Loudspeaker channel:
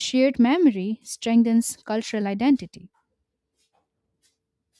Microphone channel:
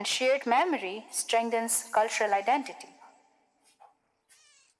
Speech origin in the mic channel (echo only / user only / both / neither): echo only